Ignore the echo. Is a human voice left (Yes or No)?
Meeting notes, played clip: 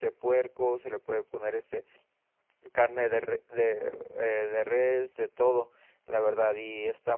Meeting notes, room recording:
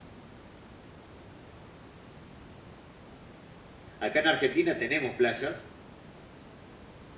Yes